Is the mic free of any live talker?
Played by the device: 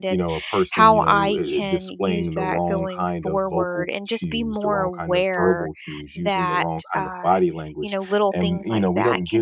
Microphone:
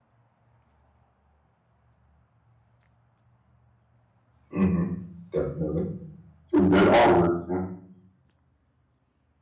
No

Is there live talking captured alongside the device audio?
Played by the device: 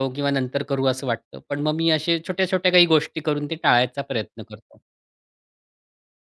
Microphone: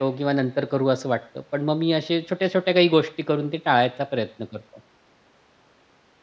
No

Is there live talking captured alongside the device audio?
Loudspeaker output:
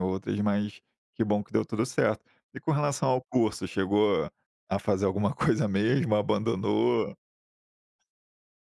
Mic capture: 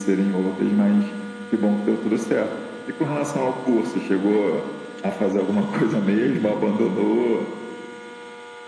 No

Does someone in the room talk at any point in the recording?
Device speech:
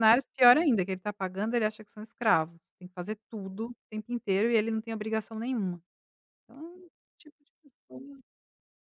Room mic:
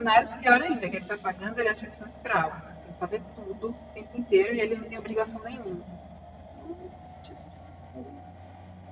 No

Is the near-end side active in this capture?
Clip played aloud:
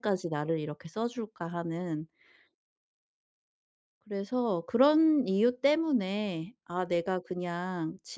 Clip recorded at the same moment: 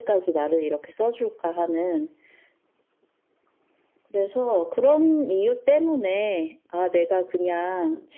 No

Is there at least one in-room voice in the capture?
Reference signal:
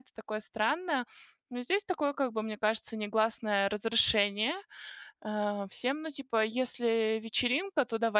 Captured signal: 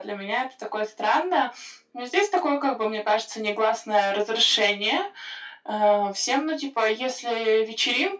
No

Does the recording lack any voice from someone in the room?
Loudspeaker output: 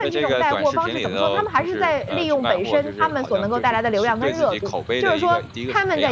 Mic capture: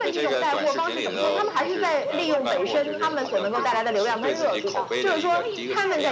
No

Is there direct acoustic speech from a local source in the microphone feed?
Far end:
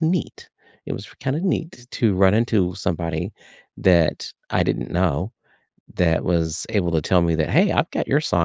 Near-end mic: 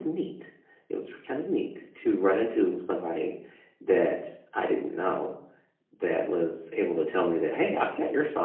No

